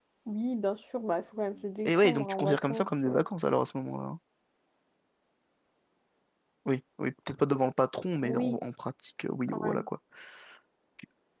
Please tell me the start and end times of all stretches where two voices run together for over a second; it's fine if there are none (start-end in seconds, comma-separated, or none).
1.9-3.2